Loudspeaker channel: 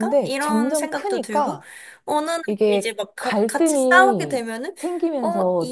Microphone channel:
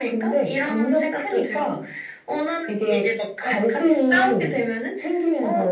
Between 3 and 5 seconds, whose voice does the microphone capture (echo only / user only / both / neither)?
echo only